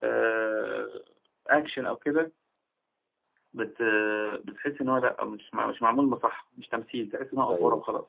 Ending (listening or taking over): taking over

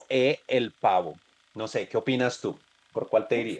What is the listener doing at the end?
taking over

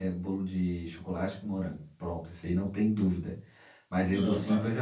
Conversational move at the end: listening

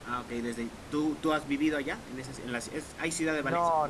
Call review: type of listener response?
taking over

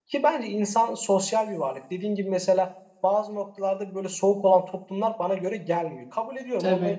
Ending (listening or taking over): listening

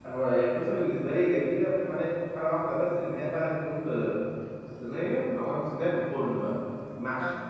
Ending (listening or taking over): listening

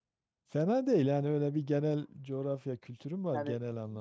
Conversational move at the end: taking over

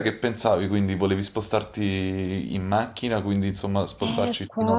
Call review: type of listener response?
taking over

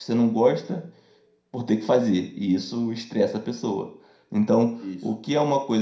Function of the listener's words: listening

